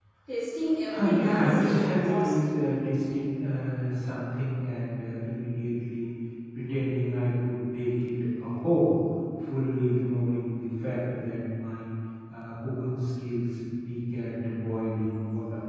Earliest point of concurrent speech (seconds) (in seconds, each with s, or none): 0.9 s